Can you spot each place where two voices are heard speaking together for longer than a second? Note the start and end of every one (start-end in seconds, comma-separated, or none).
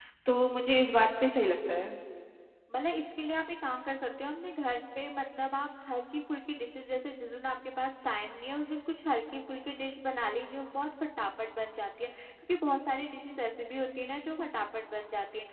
none